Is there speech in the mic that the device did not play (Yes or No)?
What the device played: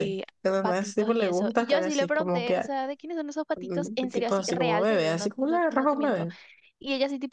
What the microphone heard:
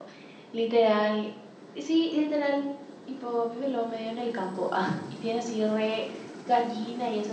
Yes